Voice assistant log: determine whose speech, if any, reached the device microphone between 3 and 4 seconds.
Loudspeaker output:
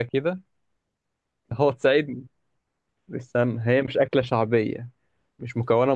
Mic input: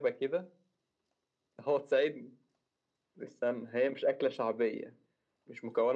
echo only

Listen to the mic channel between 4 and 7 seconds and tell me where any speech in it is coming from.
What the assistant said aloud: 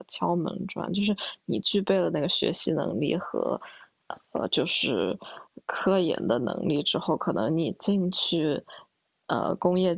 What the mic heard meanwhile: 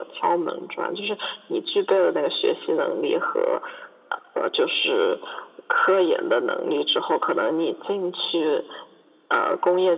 echo only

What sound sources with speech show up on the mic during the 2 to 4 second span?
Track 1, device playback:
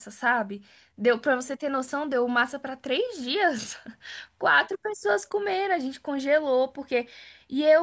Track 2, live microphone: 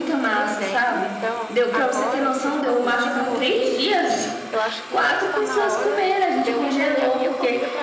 both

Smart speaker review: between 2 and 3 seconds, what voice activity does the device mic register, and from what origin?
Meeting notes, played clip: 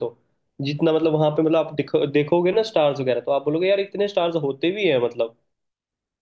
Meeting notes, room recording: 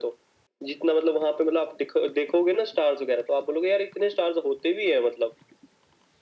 echo only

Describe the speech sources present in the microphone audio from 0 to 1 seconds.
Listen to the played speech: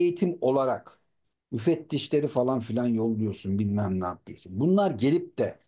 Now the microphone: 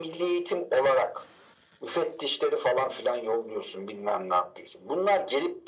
echo only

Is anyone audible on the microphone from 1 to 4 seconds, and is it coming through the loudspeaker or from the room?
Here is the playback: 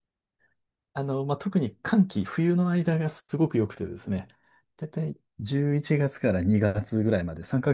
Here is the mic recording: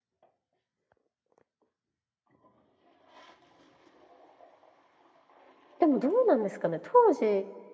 neither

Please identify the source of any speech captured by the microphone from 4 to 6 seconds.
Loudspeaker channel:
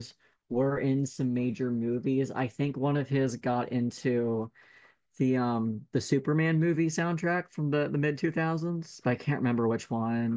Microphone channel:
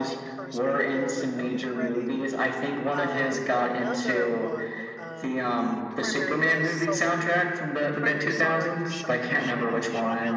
both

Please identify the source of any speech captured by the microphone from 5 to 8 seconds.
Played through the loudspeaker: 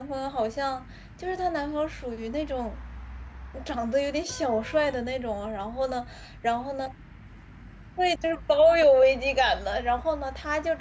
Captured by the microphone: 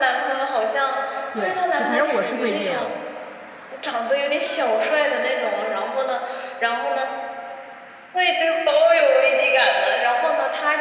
echo only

